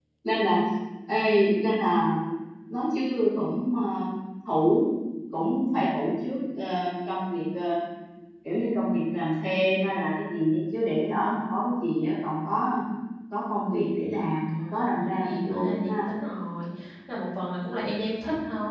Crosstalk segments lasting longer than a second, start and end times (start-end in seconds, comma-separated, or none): 14.5-16.1